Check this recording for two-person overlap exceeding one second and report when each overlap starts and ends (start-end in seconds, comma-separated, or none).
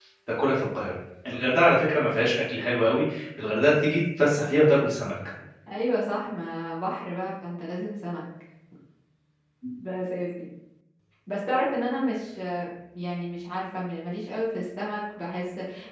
none